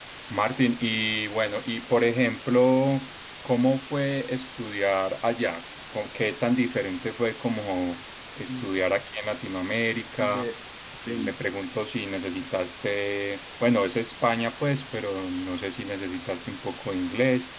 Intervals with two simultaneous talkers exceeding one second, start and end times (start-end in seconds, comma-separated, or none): none